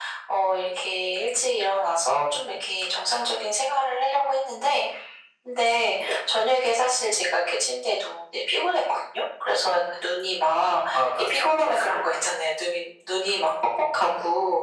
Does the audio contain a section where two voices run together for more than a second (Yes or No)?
Yes